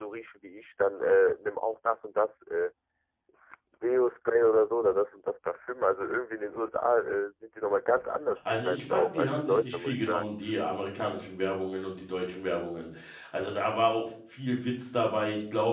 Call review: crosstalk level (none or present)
present